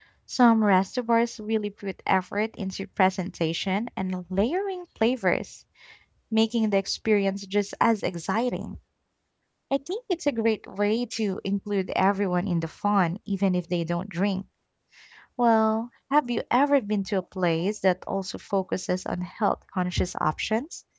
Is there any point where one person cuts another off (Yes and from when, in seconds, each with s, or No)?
No